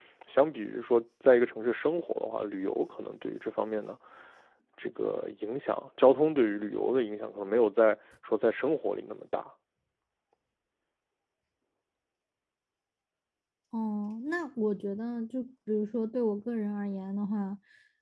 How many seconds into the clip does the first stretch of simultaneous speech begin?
none

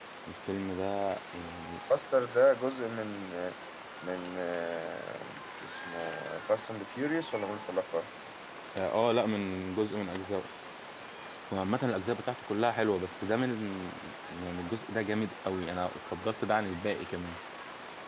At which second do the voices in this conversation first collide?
none

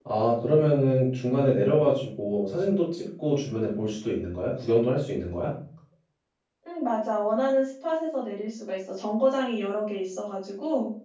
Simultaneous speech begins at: none

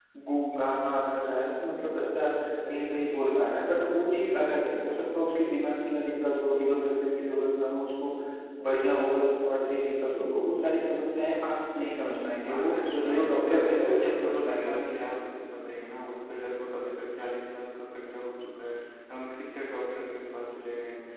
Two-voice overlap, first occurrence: 12.5 s

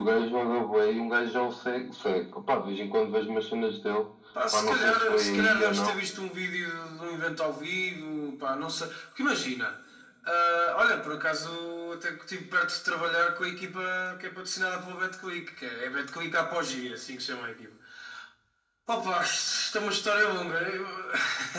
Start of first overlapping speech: 4.5 s

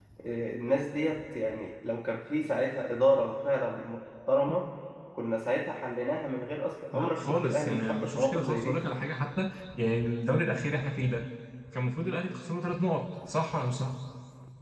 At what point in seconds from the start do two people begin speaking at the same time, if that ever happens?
6.9 s

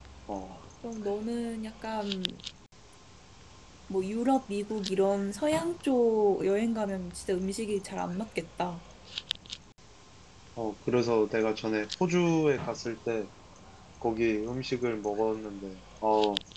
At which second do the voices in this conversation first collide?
none

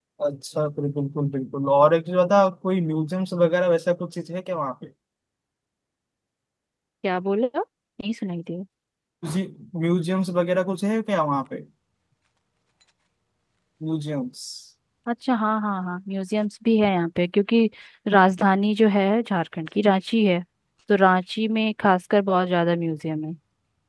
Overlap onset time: none

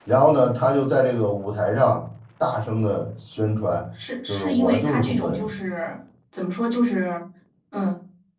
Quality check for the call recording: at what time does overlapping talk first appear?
4.3 s

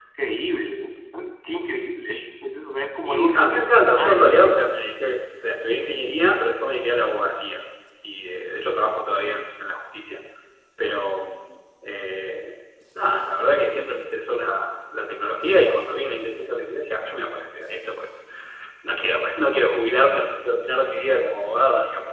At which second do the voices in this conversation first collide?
3.0 s

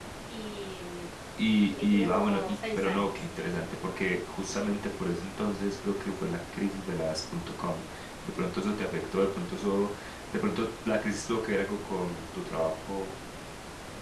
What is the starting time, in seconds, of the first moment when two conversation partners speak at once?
1.7 s

